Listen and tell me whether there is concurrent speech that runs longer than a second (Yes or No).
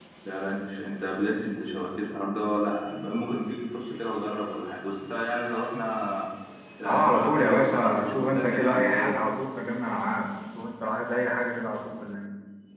Yes